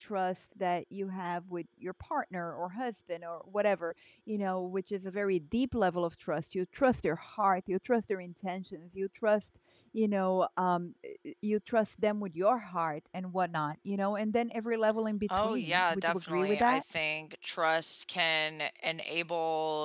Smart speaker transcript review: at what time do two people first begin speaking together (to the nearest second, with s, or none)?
15 s